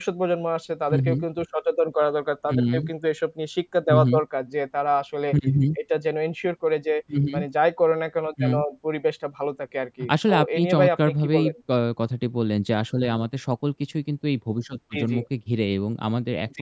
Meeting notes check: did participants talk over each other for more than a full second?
Yes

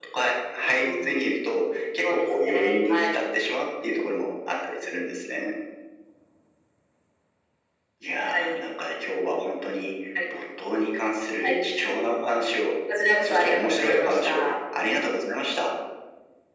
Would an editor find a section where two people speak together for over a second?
Yes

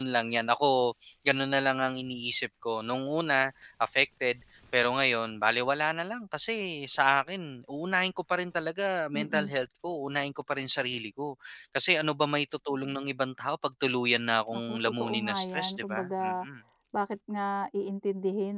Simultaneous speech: Yes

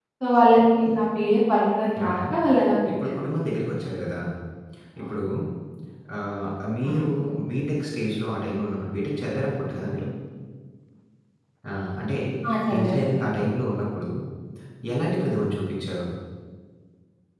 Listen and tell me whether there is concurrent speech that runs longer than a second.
No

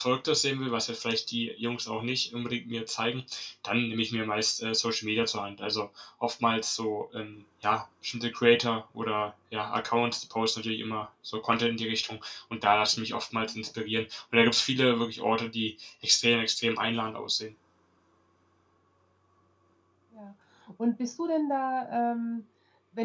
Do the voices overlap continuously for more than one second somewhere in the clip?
No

